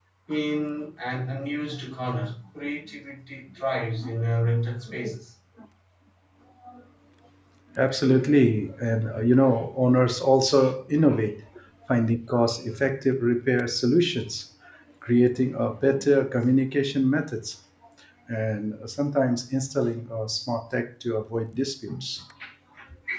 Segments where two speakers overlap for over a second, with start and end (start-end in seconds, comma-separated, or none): none